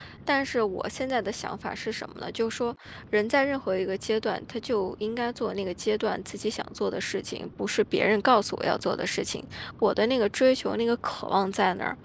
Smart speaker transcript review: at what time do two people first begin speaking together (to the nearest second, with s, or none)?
none